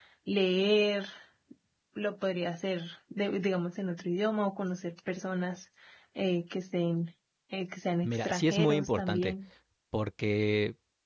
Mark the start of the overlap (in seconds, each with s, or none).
8.0 s